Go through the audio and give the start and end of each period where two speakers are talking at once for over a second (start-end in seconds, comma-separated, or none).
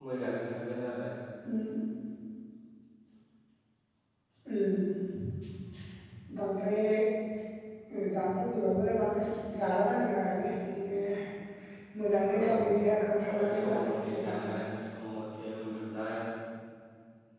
13.3-14.6